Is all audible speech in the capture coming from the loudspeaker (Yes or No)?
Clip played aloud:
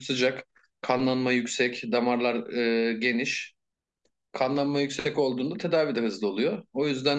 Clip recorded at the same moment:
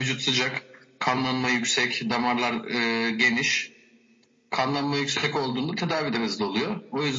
Yes